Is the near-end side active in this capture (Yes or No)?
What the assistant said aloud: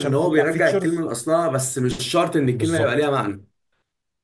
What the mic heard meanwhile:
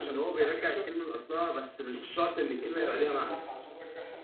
Yes